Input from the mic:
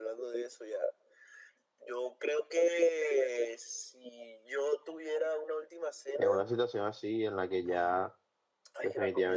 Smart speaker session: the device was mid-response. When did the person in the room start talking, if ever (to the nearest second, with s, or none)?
6 s